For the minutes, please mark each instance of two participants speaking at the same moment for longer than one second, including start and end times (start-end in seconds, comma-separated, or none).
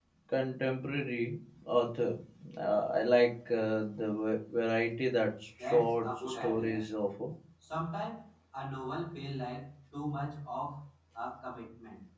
5.6-6.8